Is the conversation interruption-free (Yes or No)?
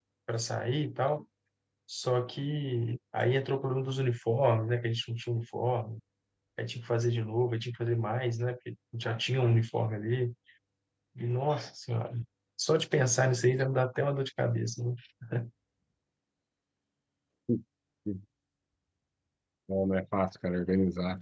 Yes